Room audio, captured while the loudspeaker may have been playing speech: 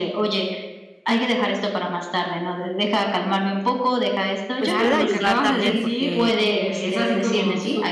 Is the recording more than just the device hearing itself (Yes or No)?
Yes